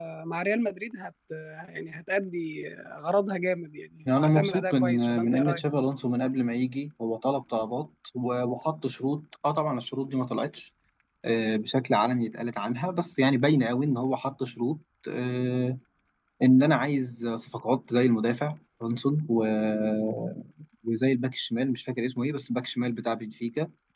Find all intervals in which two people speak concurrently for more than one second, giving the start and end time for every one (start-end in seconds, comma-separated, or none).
4.2-5.6